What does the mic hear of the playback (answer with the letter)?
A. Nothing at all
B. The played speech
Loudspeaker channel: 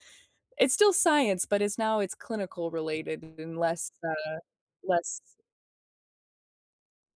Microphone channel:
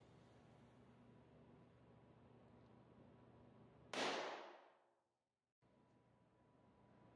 A